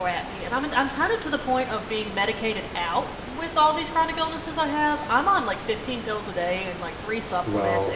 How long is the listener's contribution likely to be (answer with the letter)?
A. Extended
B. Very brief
B